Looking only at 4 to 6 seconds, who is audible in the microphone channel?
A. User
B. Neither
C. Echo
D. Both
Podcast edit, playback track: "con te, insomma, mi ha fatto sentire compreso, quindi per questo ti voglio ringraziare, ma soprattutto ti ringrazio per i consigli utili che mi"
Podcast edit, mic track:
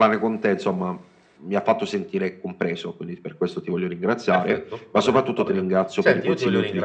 D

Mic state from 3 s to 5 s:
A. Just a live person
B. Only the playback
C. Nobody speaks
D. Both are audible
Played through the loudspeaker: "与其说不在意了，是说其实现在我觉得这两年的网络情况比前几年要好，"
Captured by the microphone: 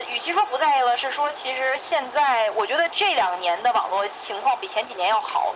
B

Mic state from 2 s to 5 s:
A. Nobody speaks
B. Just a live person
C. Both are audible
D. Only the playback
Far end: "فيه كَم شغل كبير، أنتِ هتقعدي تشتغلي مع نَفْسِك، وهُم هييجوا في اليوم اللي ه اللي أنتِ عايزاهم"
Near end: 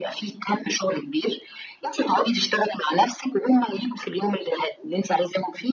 D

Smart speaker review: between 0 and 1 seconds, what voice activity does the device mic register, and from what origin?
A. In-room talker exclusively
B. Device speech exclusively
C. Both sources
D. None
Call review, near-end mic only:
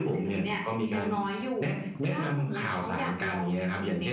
B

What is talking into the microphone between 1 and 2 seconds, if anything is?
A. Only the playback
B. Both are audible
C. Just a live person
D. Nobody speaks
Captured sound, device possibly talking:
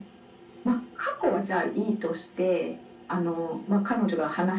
A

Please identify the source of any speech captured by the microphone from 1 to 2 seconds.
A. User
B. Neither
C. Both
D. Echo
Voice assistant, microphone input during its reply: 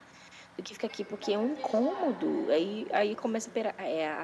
C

